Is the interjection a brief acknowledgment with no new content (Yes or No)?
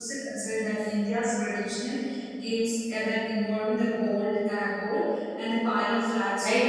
No